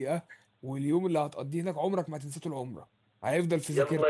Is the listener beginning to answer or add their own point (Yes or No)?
Yes